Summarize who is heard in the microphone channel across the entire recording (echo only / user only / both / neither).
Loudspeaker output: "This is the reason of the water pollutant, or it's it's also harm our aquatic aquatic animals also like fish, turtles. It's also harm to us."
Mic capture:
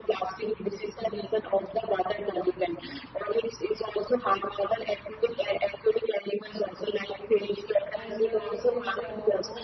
both